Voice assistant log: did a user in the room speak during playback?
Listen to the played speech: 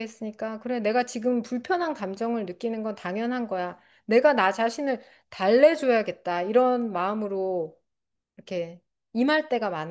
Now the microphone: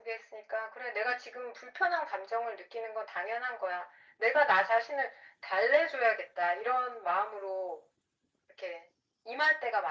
No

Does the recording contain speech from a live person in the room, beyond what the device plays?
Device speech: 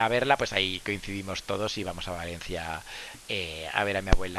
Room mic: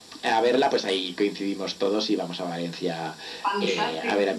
Yes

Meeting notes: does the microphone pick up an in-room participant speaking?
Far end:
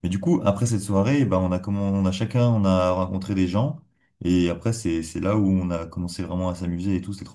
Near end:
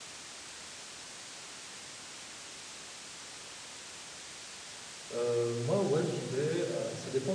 Yes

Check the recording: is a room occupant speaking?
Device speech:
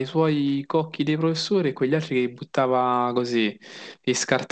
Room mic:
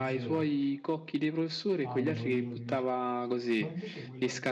Yes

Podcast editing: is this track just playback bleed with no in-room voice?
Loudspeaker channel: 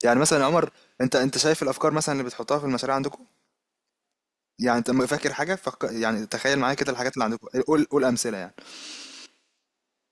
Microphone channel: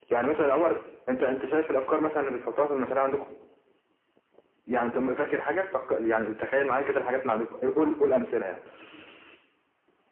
Yes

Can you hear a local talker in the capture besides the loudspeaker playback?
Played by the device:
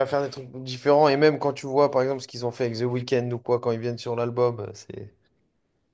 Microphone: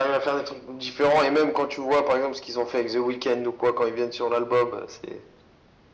No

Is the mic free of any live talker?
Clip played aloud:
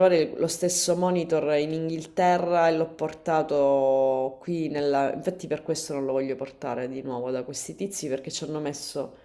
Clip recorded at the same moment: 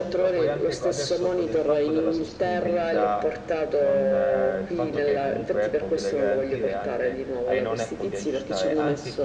No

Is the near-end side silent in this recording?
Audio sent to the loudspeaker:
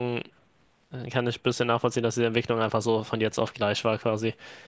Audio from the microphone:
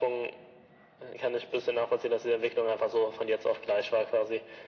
Yes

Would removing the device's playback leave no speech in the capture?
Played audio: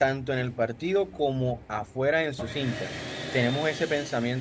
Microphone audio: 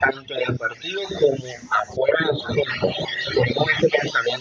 Yes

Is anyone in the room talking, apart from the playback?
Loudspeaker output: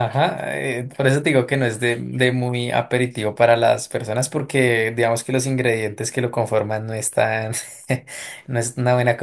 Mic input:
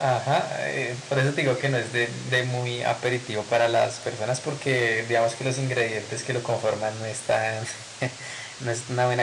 No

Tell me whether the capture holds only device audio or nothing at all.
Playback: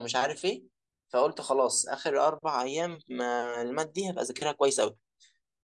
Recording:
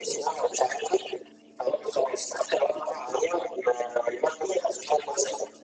Yes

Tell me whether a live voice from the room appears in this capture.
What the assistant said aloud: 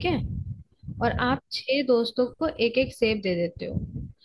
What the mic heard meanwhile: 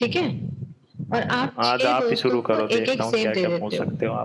Yes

